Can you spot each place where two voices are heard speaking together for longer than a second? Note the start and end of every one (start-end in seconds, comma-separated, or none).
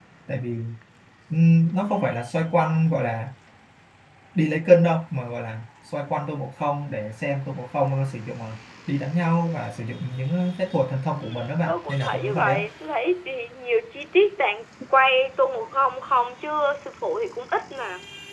11.2-12.6